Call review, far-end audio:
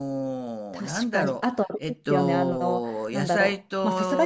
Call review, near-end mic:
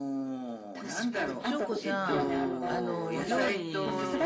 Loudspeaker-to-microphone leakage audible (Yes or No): Yes